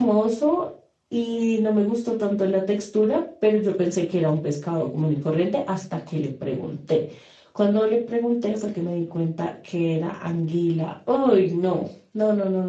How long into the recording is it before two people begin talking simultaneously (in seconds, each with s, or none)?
none